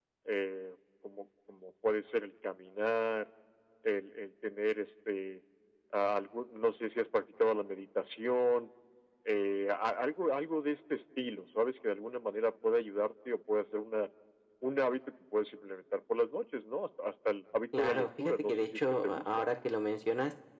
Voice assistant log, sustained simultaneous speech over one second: present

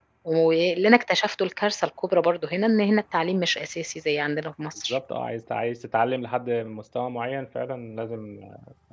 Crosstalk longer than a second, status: none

